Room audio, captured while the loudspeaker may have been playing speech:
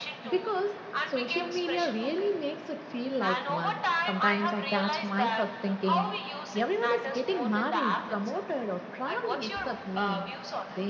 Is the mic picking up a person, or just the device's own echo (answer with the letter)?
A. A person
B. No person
A